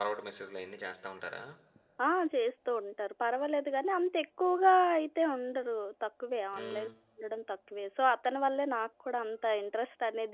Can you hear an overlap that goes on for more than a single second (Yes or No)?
No